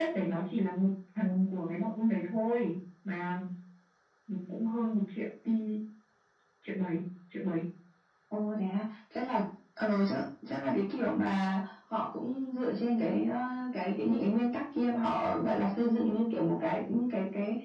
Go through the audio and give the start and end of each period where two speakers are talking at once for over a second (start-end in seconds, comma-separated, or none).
none